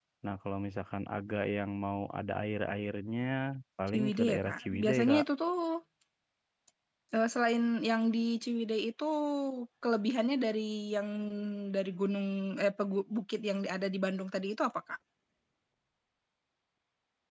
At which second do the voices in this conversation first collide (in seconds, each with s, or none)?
3.9 s